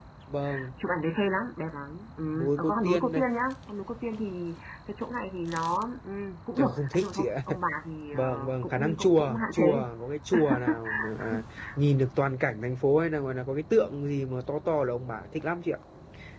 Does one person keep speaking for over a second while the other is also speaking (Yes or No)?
Yes